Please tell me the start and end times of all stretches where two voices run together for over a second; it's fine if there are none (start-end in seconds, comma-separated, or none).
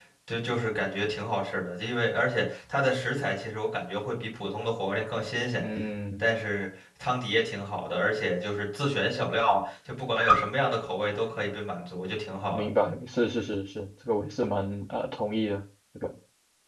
none